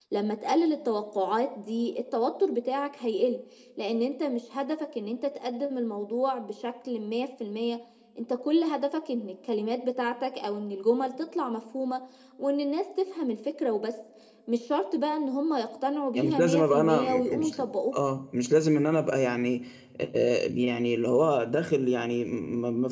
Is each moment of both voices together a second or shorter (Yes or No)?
No